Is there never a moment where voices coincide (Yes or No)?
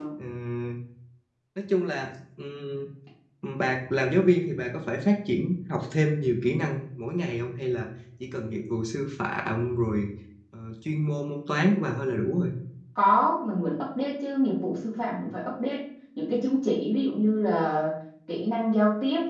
Yes